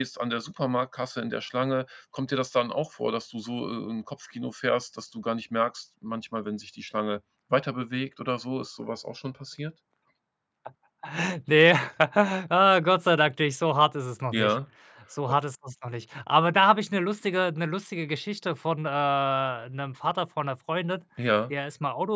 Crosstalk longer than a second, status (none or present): none